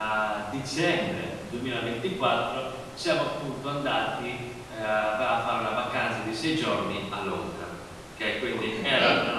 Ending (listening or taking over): listening